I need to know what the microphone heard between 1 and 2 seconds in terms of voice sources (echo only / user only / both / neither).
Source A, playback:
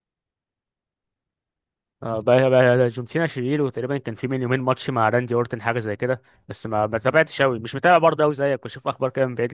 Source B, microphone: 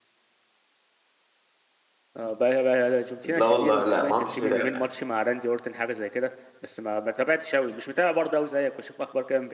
neither